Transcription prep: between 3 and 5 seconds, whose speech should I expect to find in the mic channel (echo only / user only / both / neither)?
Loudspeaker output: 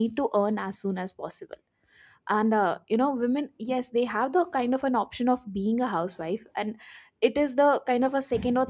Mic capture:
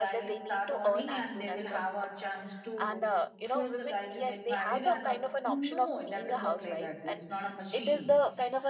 both